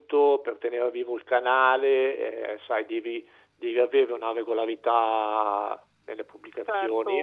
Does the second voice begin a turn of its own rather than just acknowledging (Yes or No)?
Yes